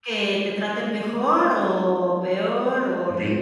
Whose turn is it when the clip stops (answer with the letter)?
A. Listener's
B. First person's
A